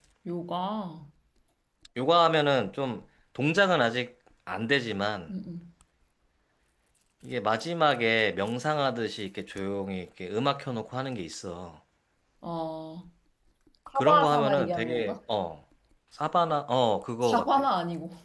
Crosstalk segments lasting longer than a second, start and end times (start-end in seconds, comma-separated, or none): 13.9-15.2